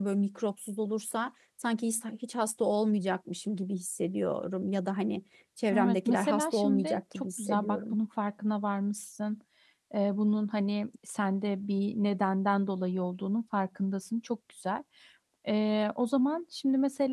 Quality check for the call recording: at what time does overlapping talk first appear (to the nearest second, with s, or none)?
6 s